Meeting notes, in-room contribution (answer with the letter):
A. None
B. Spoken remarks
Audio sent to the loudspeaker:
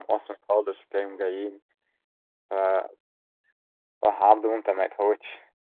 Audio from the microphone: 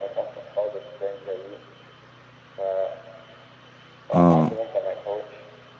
B